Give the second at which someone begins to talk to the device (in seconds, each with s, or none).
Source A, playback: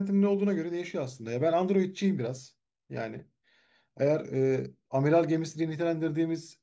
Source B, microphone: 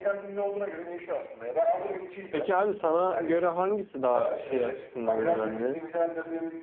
2.3 s